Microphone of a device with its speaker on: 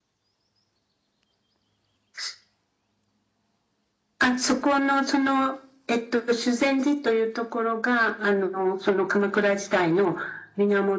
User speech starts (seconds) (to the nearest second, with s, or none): none